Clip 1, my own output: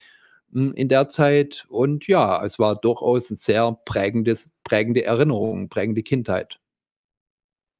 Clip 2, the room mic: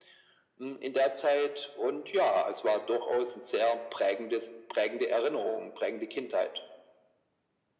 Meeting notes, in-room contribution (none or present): none